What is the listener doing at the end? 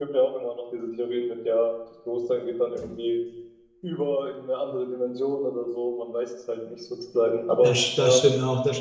taking over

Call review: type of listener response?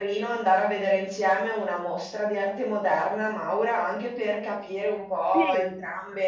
listening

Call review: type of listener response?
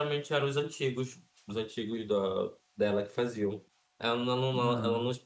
listening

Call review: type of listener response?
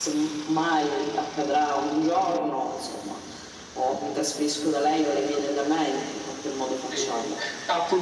taking over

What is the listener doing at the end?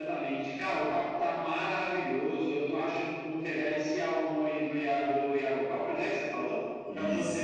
listening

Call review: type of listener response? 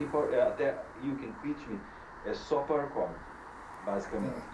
listening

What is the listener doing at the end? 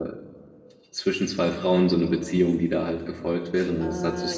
taking over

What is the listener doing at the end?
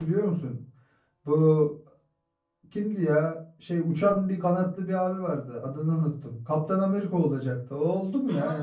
taking over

